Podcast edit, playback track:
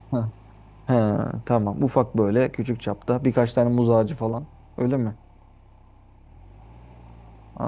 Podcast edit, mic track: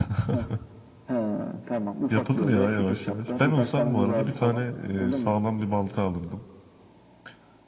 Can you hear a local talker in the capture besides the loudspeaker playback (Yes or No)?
Yes